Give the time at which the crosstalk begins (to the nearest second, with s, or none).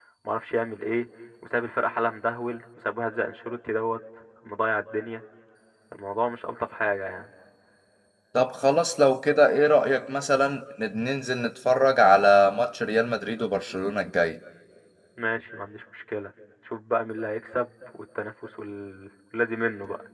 none